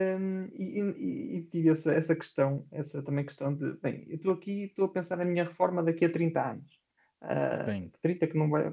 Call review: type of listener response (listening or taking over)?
listening